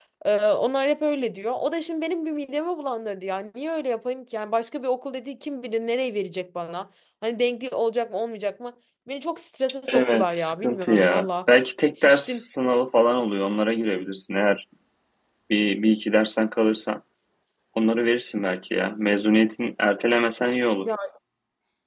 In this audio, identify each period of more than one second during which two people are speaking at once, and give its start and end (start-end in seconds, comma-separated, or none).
9.9-11.3